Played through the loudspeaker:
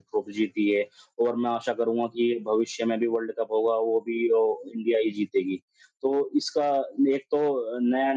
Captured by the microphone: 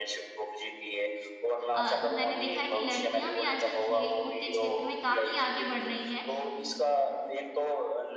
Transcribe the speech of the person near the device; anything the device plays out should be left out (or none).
अ, मैंने देखा है कि लड़कियाँ भी आजकल खेलकूद के क्षेत्र में काफ़ी आगे बढ़ रही हैं